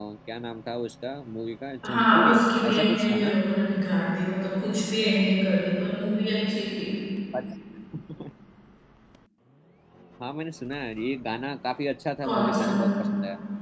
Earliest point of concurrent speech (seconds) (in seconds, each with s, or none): 1.8 s